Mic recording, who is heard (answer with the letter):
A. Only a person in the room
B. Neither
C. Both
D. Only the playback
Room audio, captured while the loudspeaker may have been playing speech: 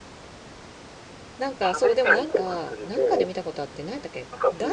C